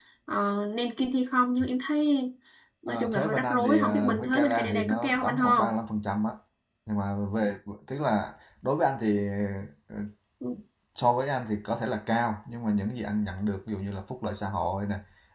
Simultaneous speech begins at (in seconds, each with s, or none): 2.9 s